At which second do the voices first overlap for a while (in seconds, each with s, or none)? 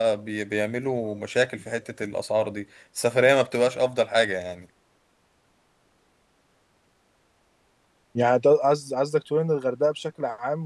none